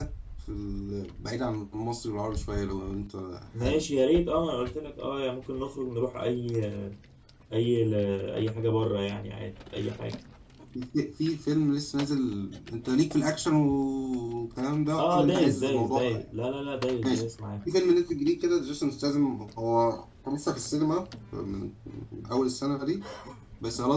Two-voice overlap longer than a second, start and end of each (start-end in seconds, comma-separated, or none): 15.0-16.3